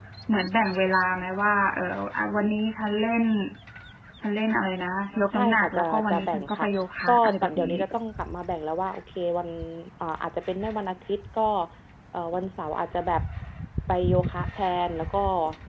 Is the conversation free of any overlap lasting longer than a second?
No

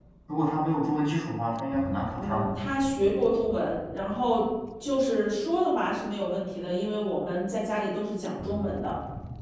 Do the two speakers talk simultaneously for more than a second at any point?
No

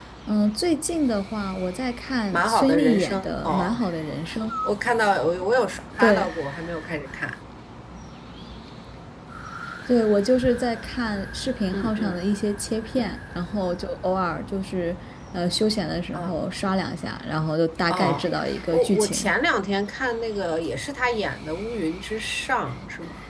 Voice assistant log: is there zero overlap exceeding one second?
No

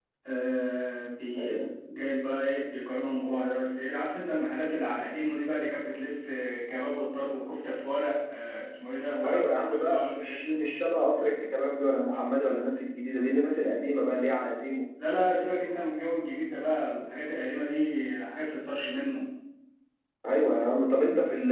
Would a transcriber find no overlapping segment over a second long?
No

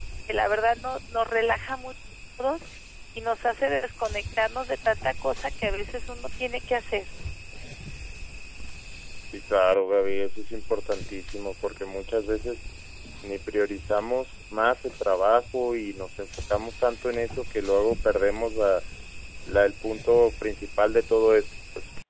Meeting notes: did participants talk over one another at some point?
No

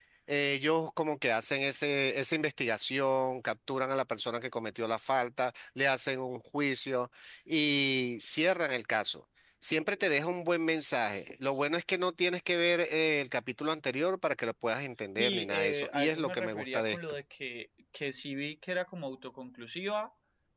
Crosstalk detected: Yes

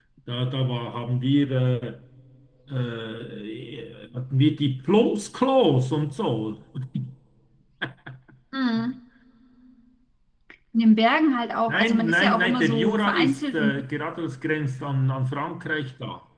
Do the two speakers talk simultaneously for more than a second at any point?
Yes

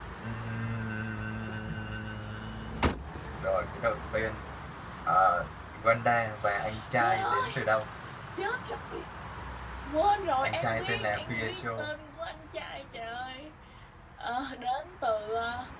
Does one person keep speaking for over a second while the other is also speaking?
Yes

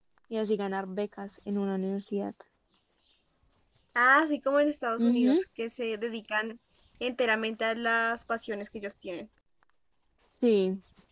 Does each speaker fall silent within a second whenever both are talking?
Yes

